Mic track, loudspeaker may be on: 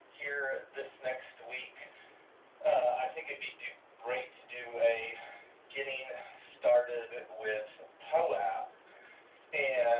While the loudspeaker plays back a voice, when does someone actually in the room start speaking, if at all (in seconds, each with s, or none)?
none